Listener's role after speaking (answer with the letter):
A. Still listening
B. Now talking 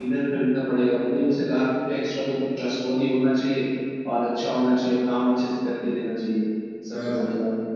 B